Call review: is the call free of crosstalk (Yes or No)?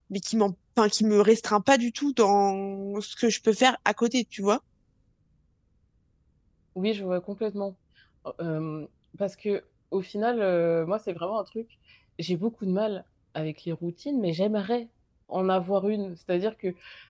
Yes